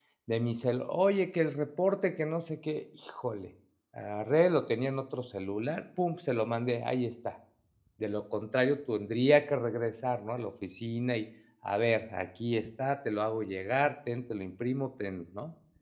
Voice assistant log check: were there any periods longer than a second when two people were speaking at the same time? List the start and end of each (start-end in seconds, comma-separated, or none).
none